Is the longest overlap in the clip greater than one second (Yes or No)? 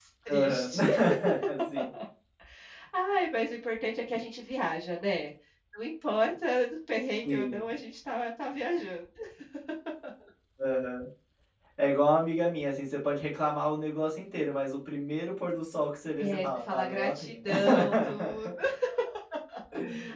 Yes